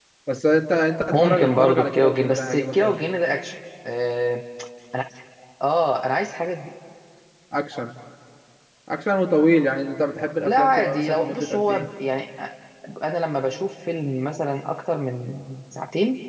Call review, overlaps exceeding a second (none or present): present